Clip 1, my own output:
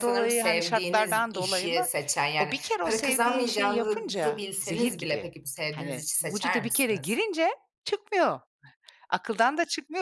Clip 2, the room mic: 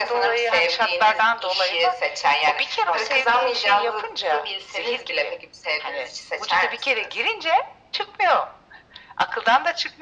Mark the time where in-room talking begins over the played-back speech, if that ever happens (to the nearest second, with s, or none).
none